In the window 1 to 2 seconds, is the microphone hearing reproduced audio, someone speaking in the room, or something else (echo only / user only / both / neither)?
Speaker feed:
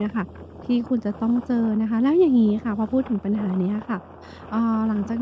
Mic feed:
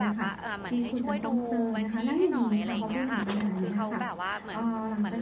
both